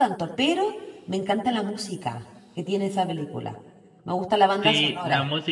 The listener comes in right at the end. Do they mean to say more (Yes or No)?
Yes